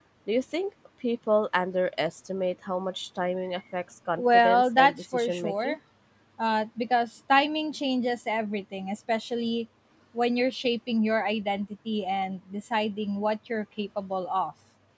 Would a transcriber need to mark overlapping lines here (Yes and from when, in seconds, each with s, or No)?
Yes, from 4.2 s